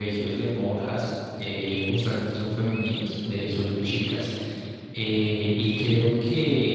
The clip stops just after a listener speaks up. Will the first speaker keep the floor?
Yes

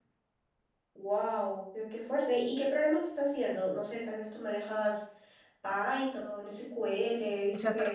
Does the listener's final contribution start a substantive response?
Yes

